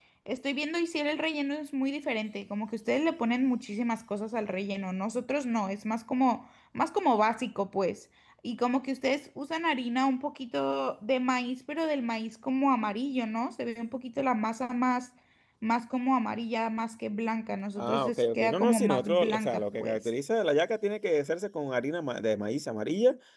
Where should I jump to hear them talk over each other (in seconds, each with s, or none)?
17.8 s